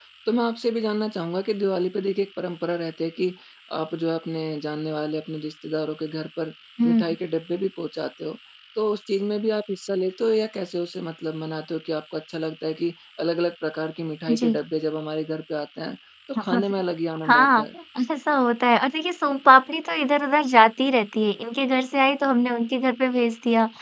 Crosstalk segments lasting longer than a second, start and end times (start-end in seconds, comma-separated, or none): none